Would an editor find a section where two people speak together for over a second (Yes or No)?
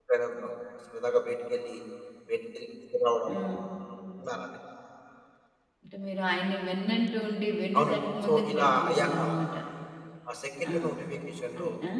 Yes